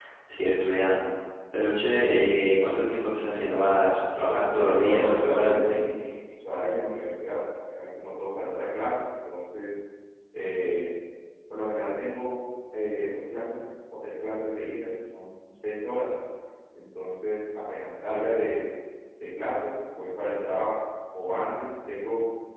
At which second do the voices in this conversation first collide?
4 s

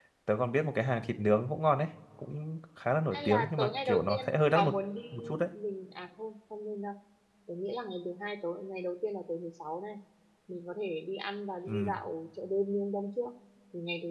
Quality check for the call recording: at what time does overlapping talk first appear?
3 s

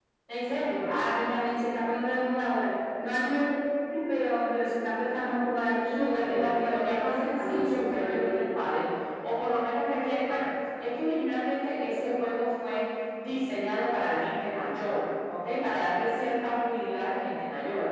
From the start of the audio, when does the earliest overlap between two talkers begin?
6 s

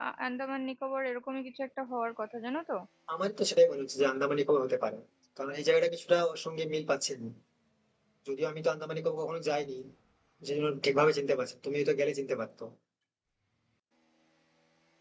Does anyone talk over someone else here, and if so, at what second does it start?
none

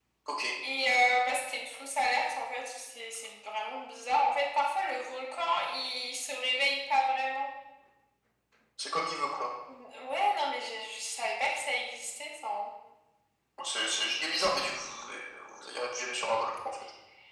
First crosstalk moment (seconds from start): none

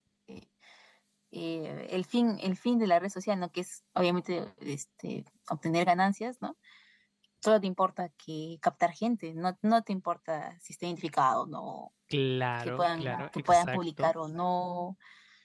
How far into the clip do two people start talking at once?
13 s

